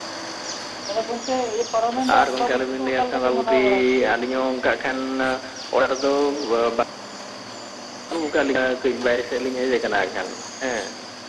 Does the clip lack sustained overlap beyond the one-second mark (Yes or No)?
No